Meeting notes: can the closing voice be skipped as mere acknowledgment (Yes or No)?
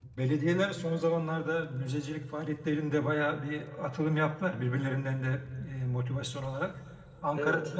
Yes